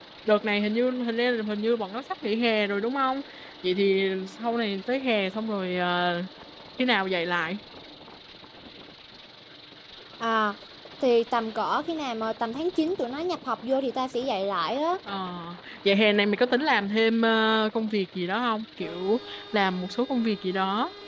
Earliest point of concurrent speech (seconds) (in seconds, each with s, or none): none